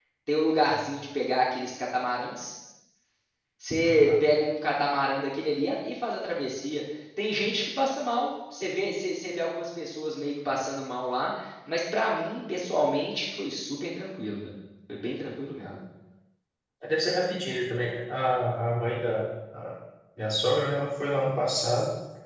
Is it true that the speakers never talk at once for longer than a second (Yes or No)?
Yes